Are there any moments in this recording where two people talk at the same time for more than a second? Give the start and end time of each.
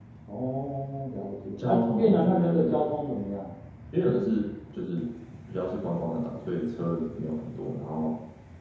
1.6-2.8

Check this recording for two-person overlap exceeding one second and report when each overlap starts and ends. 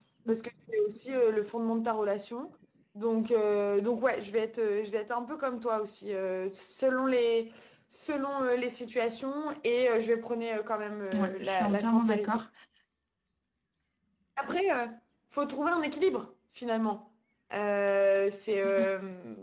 11.1-12.4

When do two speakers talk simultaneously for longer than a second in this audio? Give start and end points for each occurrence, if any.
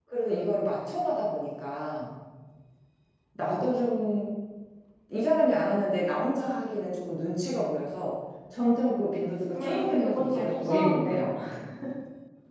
9.5-11.3

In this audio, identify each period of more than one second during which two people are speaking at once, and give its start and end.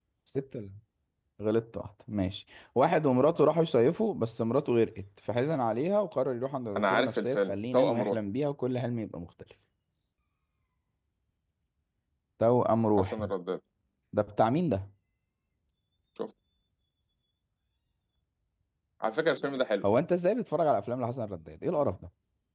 6.8-8.2

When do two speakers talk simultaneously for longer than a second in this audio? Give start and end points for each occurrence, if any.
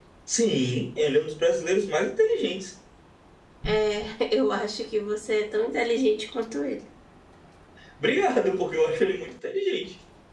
none

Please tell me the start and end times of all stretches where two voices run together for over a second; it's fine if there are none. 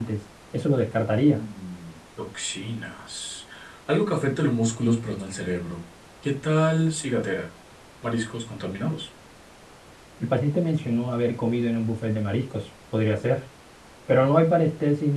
none

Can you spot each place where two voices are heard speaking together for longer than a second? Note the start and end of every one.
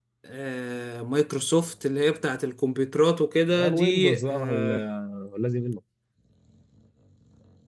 3.5-4.8

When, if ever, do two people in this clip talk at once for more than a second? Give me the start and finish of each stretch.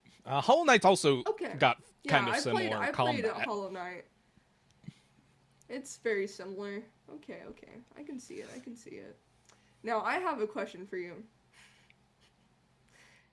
2.1-3.5

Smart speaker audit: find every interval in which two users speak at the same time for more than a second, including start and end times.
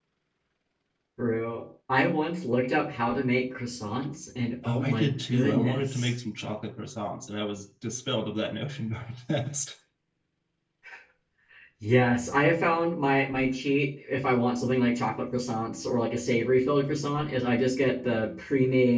4.6-6.1

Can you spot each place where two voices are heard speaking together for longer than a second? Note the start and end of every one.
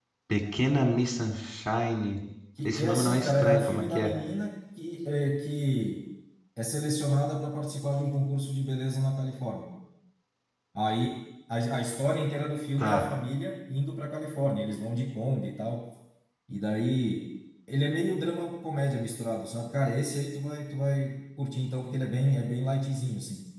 2.6-4.1

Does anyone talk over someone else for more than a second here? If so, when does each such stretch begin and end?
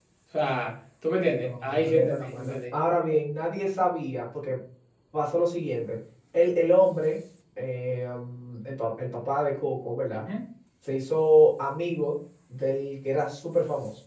1.3-2.5

